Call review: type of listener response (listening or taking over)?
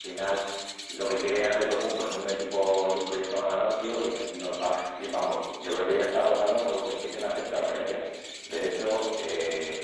listening